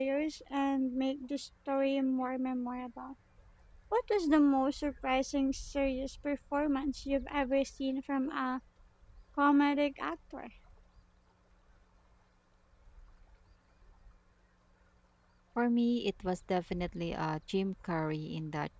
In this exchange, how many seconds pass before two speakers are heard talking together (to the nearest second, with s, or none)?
none